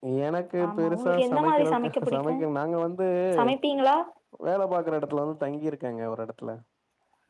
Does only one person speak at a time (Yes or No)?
No